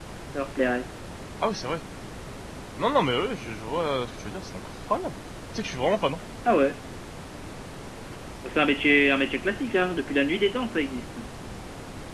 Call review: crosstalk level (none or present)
none